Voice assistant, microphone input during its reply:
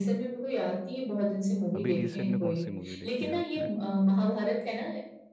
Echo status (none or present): present